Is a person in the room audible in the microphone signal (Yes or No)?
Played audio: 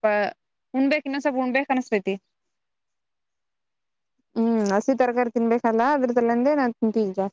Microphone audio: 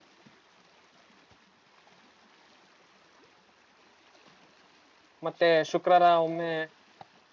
Yes